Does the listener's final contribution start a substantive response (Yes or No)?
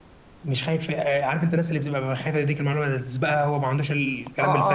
Yes